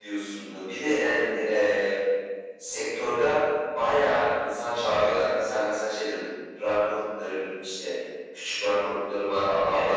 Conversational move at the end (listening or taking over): taking over